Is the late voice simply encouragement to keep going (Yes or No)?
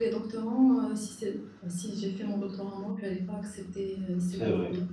No